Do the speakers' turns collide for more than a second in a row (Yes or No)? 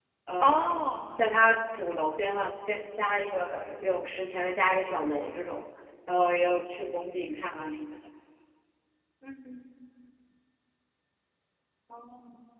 No